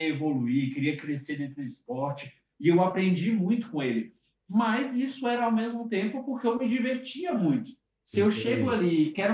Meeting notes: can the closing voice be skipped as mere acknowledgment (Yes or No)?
Yes